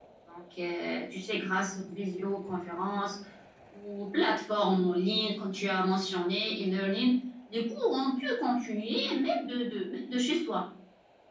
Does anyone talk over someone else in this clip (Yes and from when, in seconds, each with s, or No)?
No